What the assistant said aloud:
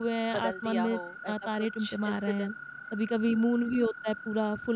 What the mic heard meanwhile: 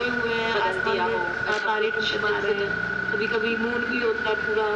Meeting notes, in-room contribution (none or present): none